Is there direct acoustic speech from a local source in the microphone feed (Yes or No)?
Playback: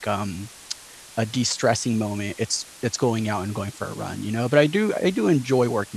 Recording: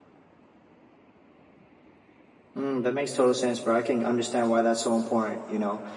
Yes